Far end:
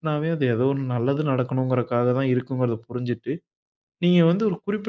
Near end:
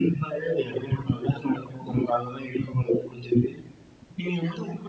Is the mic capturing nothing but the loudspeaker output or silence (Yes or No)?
Yes